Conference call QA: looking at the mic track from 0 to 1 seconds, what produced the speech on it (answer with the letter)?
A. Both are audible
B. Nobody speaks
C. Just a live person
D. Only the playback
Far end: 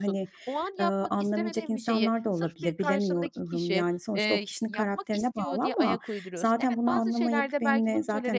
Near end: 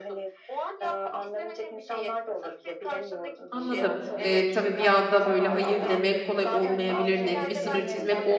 D